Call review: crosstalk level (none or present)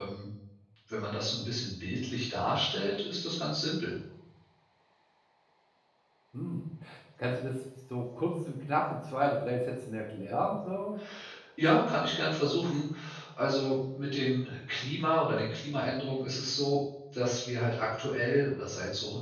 none